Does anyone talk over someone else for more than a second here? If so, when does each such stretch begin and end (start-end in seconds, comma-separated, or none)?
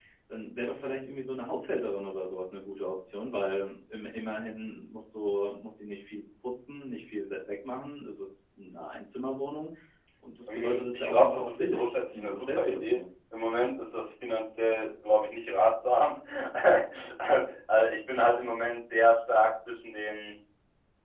10.5-13.0